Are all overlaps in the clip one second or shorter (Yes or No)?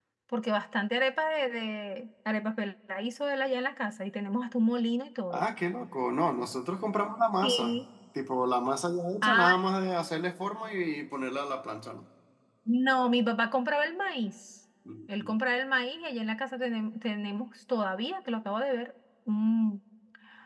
Yes